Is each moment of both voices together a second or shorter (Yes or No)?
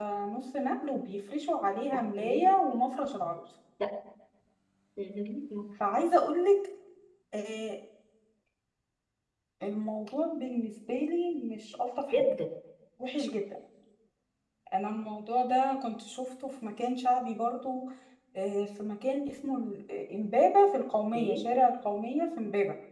Yes